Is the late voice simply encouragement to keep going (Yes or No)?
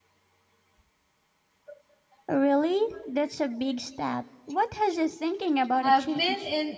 No